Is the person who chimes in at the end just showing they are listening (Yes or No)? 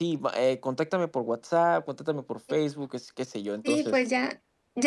No